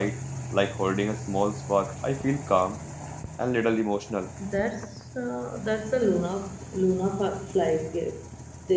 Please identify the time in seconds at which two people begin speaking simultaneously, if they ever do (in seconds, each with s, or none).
none